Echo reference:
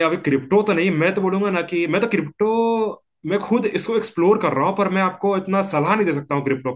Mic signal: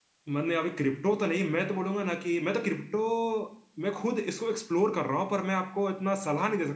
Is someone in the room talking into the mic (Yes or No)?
No